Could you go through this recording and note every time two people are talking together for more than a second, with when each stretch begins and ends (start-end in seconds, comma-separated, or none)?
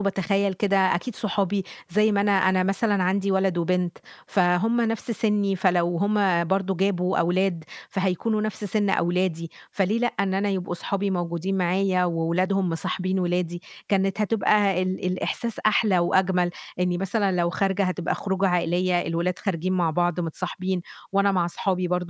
none